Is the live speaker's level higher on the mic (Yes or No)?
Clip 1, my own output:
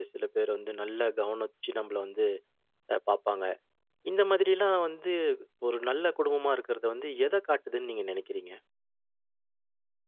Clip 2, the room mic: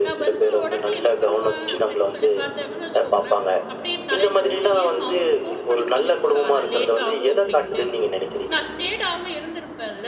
No